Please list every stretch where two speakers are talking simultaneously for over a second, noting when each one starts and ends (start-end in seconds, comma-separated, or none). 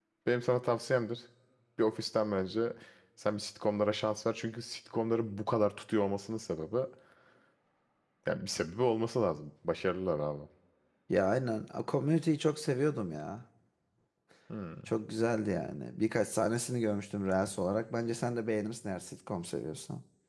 none